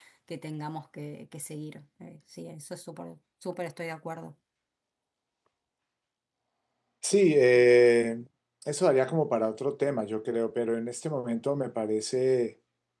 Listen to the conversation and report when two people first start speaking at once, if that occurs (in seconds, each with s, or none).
none